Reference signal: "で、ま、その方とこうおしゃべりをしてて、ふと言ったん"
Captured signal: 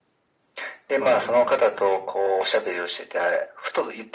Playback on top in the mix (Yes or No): Yes